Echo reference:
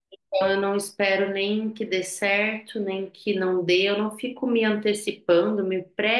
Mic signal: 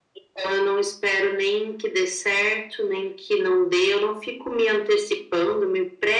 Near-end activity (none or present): none